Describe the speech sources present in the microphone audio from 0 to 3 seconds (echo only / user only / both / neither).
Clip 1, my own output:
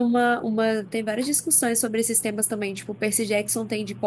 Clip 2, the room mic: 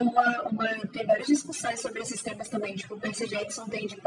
echo only